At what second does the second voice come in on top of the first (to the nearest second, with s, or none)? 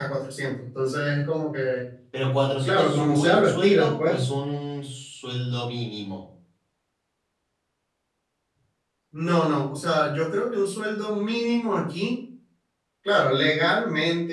3 s